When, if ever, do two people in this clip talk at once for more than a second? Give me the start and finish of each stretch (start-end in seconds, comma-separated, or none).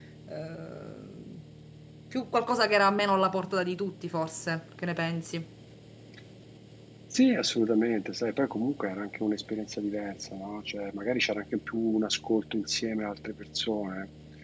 none